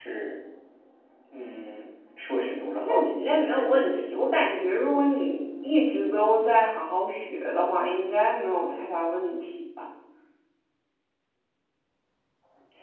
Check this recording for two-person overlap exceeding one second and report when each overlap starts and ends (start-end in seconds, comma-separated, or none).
2.8-4.1